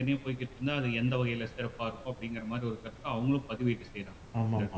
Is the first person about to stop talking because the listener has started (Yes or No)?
Yes